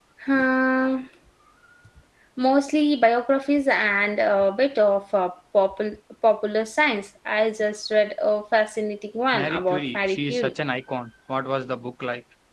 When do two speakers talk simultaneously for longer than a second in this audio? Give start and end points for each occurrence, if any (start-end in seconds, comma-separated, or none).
9.3-10.5